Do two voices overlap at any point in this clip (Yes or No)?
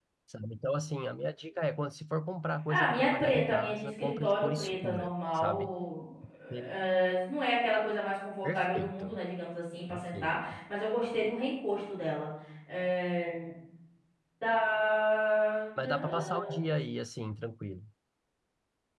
Yes